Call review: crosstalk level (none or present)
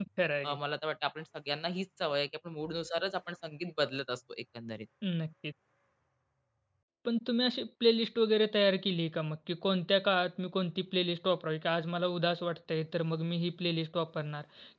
none